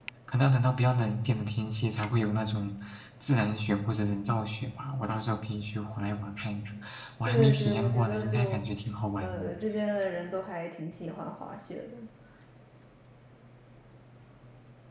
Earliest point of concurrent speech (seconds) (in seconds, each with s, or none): 7.2 s